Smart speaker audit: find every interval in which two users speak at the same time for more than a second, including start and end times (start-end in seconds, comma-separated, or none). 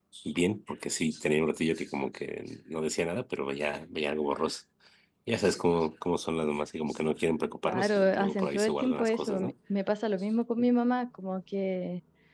7.6-9.5